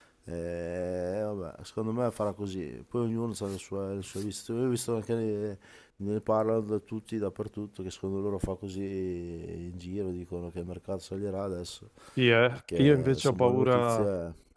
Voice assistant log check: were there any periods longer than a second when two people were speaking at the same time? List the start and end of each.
12.8-14.1

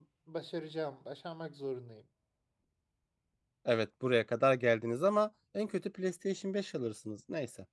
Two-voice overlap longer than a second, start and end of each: none

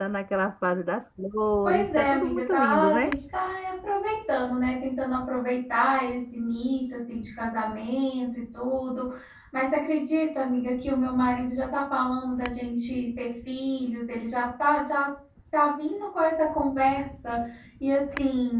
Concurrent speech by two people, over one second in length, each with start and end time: 1.6-3.1

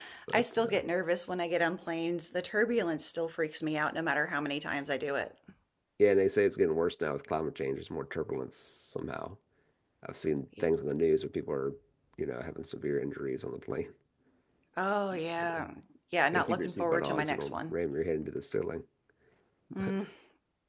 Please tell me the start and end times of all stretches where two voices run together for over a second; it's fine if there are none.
16.3-17.7

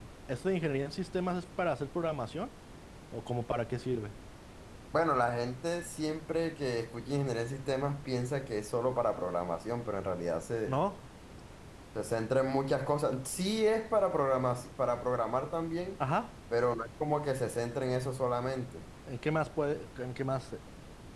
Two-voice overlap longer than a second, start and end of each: none

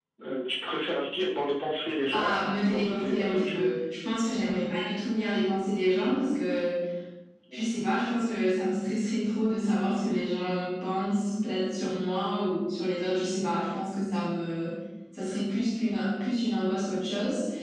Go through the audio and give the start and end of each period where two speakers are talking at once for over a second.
2.1-3.7

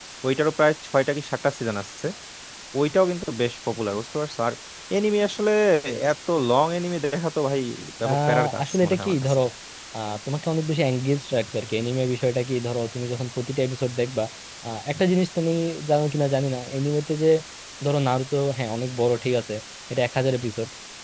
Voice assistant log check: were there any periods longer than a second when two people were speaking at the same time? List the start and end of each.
8.1-9.4

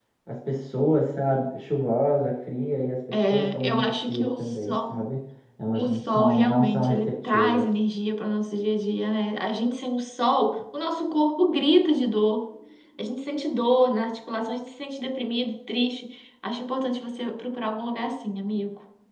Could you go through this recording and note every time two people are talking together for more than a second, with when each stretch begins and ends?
3.1-5.0, 5.8-7.7

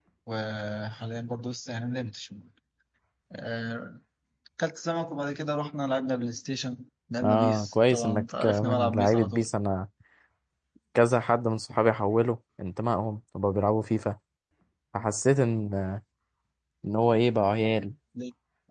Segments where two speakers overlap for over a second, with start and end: 7.2-9.5

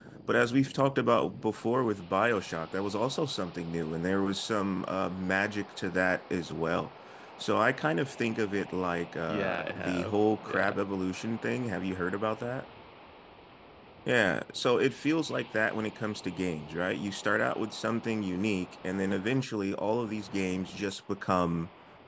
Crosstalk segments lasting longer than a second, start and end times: 9.3-10.8

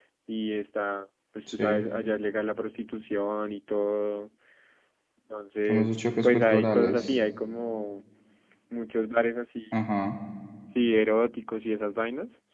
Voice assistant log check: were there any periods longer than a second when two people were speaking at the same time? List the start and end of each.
5.7-7.1

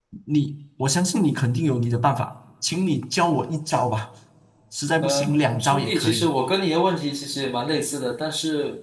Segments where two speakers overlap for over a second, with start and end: 5.0-6.3

